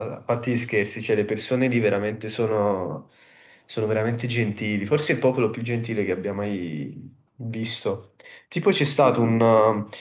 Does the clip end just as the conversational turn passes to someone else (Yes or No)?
No